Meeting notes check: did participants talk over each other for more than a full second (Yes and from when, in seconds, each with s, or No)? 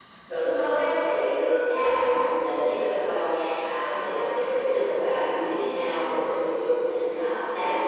No